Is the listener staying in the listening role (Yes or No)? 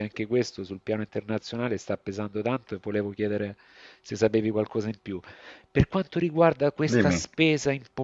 Yes